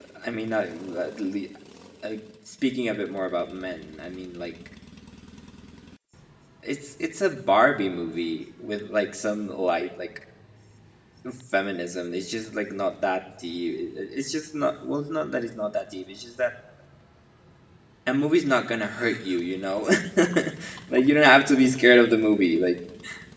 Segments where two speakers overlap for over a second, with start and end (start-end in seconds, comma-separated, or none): none